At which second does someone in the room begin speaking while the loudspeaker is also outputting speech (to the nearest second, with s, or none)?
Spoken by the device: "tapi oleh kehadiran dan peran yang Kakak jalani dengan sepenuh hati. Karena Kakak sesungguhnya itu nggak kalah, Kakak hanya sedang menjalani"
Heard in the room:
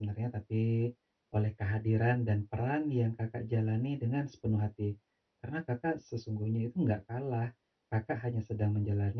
none